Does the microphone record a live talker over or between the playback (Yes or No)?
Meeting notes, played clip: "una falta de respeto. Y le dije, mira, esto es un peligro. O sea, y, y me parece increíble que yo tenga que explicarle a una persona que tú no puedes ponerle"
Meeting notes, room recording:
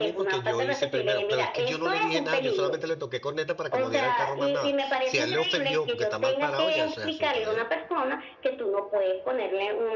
Yes